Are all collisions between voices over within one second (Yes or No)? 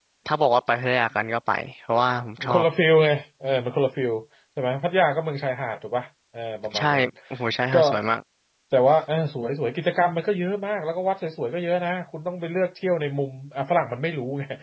Yes